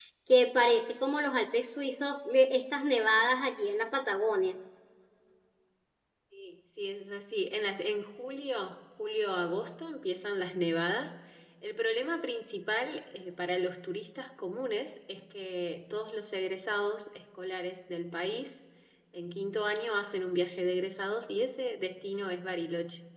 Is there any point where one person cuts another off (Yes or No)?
No